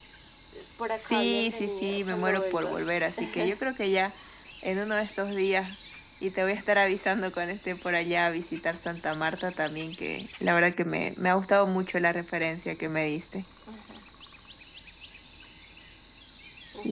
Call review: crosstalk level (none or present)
present